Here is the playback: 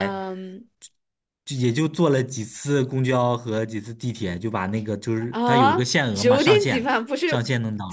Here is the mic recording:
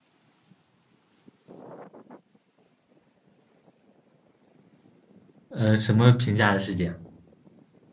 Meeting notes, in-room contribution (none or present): present